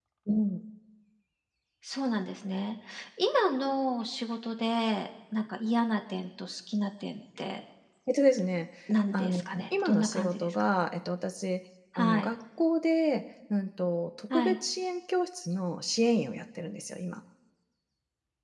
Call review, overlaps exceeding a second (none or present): present